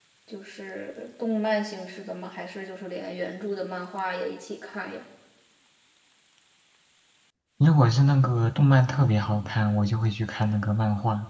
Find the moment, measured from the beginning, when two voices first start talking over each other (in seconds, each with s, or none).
none